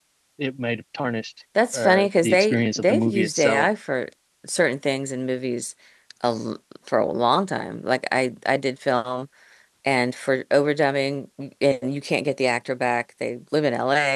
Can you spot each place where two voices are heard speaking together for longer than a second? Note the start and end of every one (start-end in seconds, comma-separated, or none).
1.7-3.7